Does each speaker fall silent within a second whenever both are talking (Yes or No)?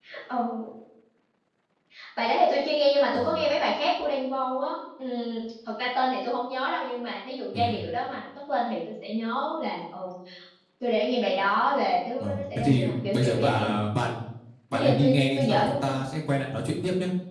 No